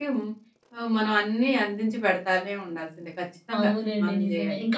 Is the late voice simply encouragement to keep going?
No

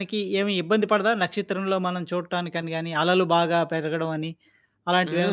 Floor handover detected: Yes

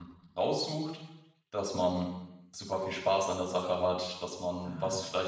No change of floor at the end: Yes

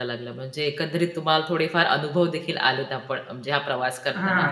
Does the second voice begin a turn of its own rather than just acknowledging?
Yes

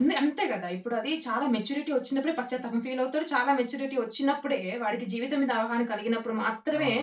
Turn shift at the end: Yes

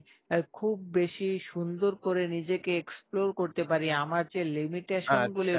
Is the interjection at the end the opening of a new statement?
No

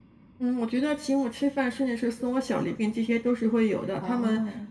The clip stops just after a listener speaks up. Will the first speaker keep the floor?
Yes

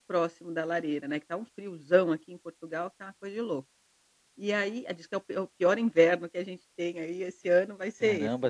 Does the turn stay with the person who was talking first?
No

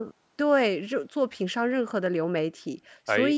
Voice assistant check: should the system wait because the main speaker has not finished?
Yes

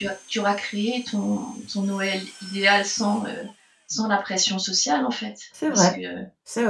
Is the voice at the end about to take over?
Yes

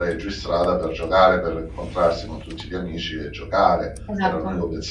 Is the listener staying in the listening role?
Yes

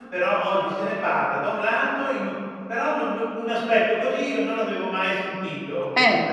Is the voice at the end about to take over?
No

